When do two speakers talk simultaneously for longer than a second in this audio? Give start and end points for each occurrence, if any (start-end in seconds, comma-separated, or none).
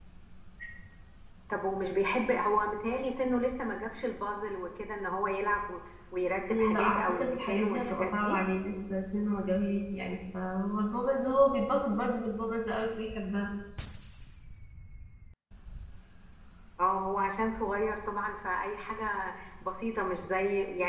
6.5-8.4